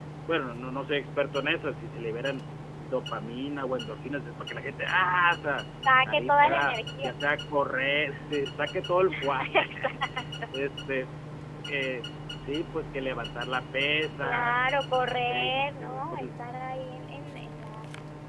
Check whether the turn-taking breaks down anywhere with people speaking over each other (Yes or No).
Yes